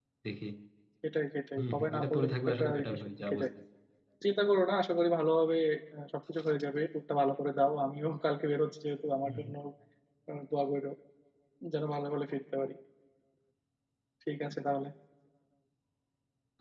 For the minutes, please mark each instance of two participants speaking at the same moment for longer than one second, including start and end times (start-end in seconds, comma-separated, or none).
1.6-3.4